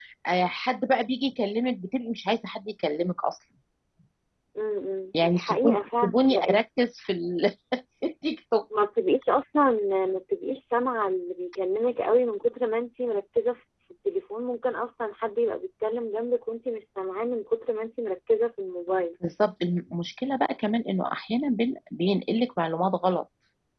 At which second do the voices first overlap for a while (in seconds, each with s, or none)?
5.2 s